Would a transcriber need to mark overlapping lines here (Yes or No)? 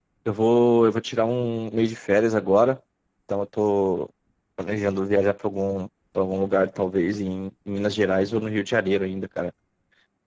No